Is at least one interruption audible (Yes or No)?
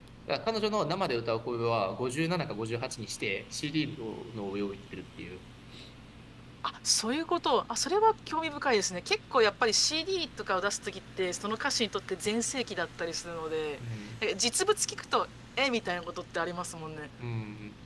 No